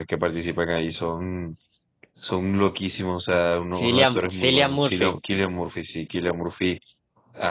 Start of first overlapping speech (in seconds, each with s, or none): 3.8 s